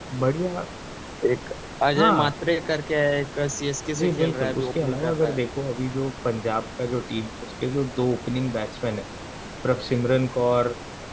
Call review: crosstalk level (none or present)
present